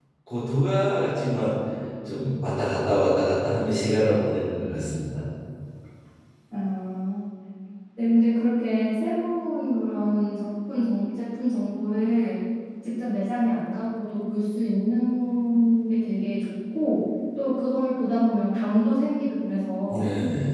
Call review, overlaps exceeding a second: none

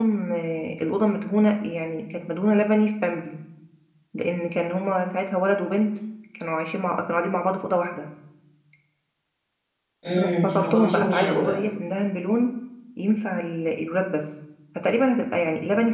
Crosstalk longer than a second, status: present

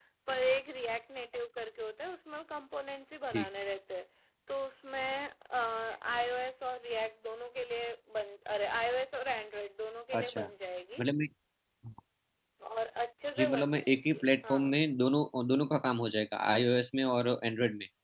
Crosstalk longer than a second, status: present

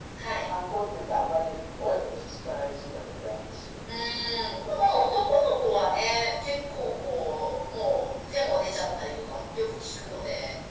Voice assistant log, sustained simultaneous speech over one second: none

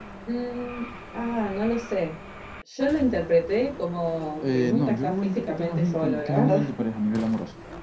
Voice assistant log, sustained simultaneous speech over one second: present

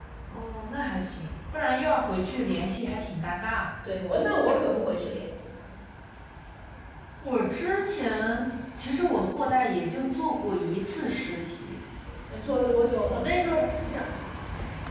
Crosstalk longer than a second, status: none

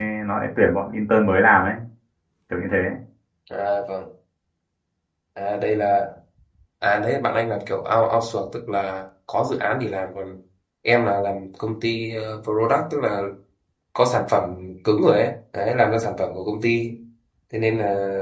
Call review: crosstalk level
none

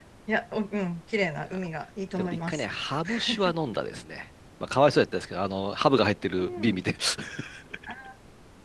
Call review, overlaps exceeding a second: none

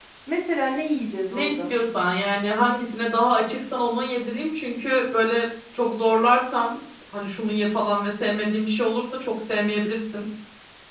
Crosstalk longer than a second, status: none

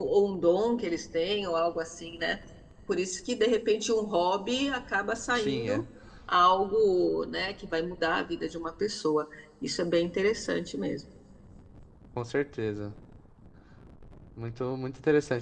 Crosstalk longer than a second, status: none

